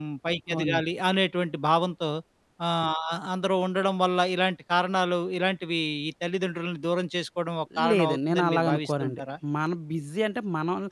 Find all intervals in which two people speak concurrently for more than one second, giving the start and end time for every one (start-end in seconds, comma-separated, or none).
7.9-9.2